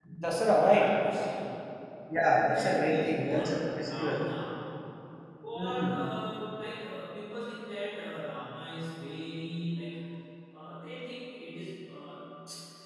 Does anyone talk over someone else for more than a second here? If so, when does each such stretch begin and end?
2.4-4.2

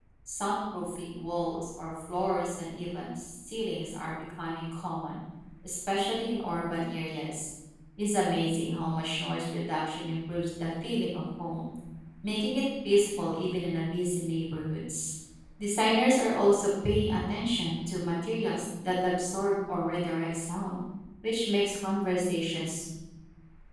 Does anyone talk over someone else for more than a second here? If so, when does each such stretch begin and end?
none

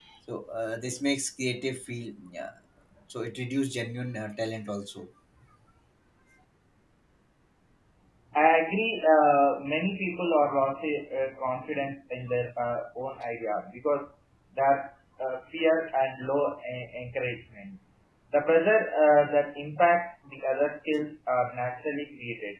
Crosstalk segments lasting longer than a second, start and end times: none

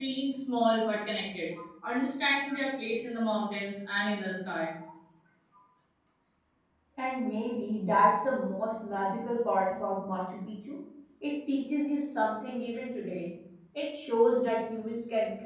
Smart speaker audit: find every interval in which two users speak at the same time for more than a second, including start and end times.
none

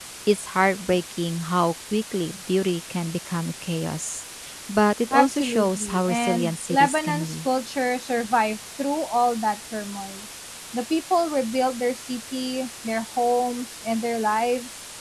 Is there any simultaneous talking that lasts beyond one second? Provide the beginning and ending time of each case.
5.1-7.5

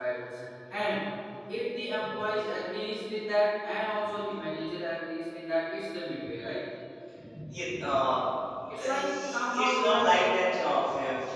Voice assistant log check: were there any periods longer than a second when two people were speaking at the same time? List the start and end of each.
8.9-10.3

